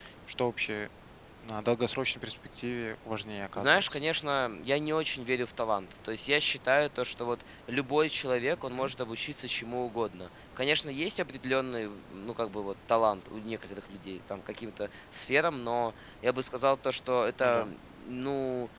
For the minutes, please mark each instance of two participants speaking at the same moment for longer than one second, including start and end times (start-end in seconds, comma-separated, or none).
none